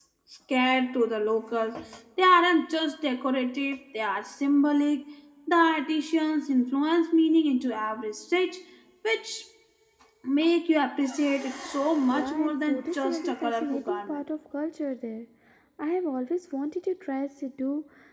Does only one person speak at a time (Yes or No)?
No